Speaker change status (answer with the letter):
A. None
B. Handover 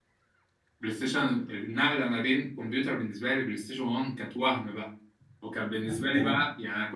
A